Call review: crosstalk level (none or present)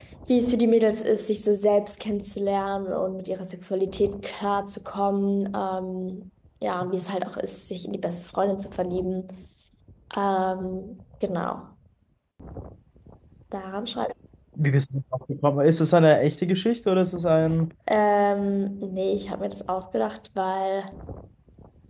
none